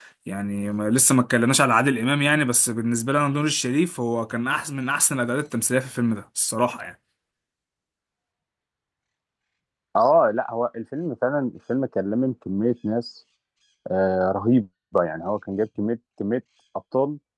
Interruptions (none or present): none